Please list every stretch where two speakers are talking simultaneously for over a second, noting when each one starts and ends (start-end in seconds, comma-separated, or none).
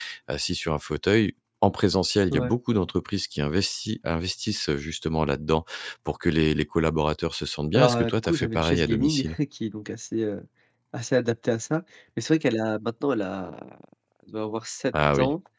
7.7-9.4